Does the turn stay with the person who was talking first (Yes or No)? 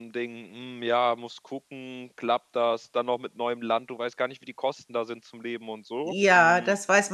No